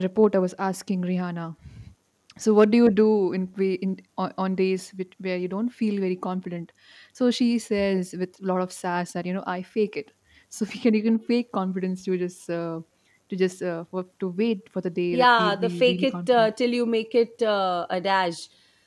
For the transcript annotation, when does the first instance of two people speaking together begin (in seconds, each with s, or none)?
15.1 s